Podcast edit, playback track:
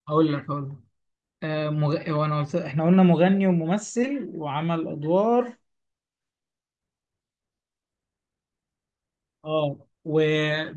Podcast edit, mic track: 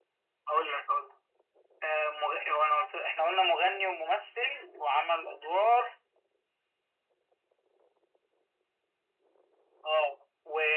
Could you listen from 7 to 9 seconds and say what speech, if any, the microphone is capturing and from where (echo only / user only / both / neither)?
neither